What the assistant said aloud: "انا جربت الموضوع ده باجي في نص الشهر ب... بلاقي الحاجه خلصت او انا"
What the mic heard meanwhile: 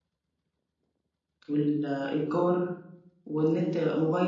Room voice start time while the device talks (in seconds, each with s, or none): 1.5 s